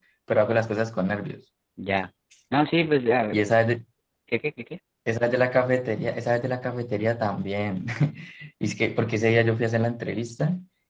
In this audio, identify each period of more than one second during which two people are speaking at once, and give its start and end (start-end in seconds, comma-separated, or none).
none